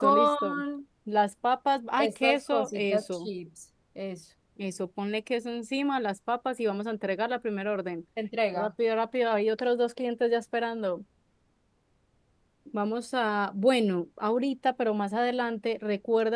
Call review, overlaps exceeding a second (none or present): present